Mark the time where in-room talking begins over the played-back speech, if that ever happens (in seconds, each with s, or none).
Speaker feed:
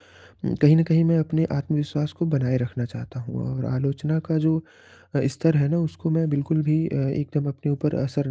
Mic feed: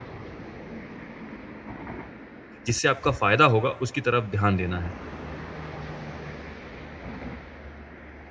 2.7 s